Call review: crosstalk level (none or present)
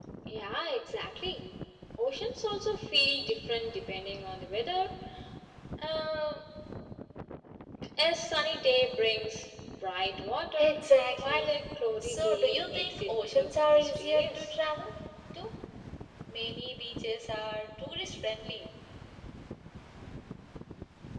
present